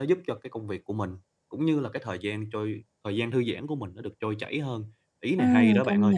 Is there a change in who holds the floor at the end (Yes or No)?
Yes